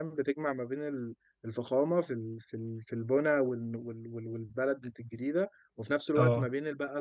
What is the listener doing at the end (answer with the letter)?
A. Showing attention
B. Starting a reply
A